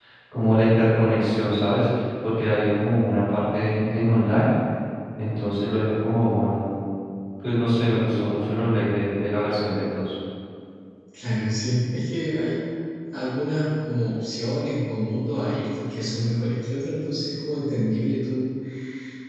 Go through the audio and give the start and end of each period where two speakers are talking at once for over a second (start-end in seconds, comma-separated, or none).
none